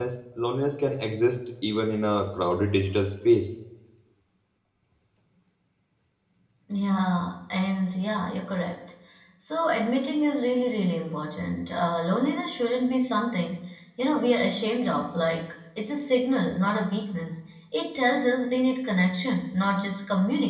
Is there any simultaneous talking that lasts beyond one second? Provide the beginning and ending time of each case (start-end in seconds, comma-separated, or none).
none